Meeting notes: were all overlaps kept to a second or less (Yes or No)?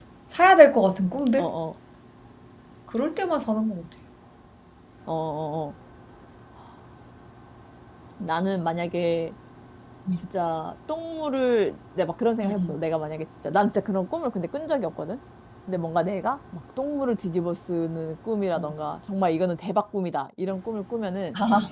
Yes